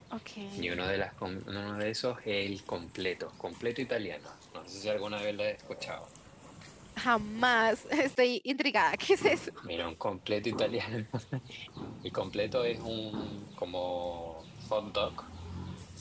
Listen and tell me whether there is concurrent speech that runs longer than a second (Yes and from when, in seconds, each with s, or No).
No